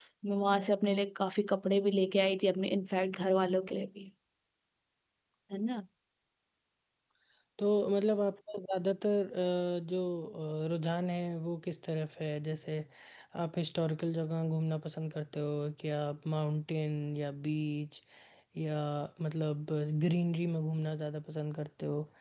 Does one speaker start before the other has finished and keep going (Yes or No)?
No